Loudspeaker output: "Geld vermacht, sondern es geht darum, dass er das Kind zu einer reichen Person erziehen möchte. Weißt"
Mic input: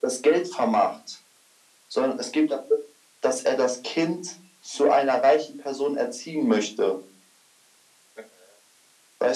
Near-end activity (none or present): none